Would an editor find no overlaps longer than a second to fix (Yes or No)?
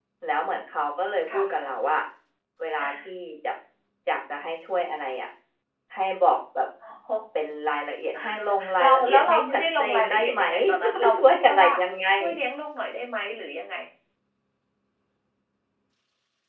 No